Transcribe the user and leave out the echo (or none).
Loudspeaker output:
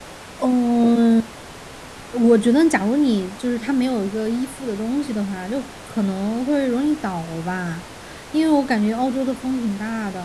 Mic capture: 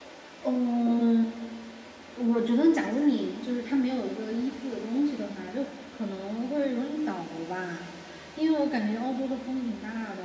none